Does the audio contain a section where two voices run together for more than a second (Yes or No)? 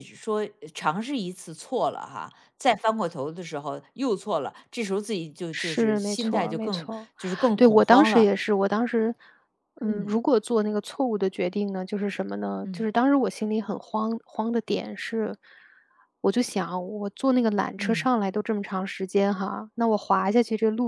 Yes